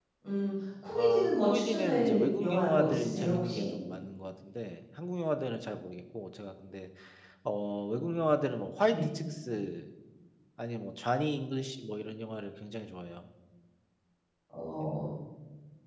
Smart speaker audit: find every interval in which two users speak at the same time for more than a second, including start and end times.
1.0-3.6

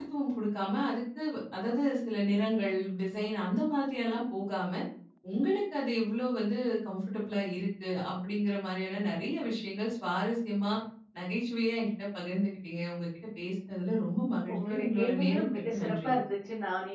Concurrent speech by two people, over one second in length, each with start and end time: 14.5-16.1

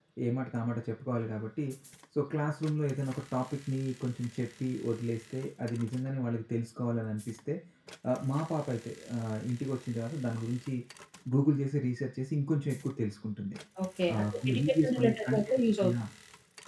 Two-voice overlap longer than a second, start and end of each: 14.1-15.9

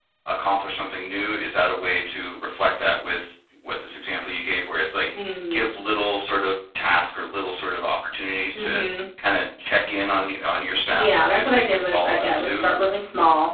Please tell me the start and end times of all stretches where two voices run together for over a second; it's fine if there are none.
10.9-12.6

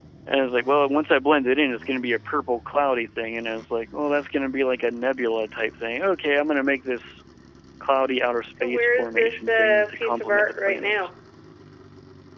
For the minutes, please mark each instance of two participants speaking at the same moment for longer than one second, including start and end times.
8.5-11.1

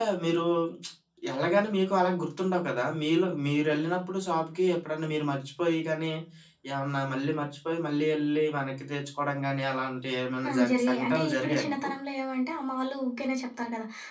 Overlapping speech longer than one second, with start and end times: 10.5-11.9

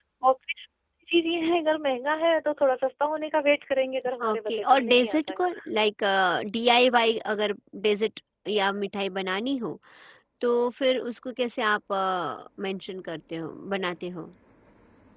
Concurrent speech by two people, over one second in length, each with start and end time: 4.2-5.6

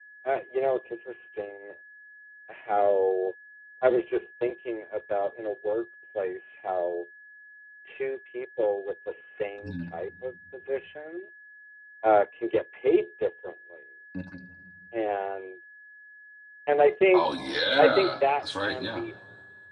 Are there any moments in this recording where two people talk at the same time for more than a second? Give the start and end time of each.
17.8-19.0

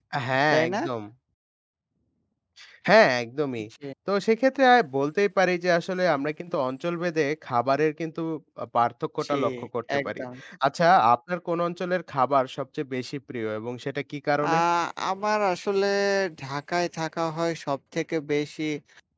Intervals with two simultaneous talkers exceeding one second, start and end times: none

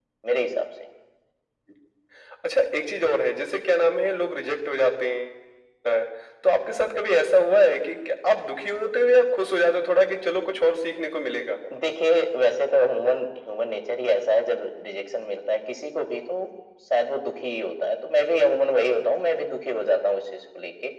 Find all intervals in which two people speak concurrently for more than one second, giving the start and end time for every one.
none

